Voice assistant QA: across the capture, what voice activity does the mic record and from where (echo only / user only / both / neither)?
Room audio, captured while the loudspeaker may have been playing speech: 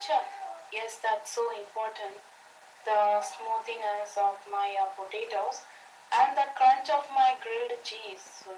echo only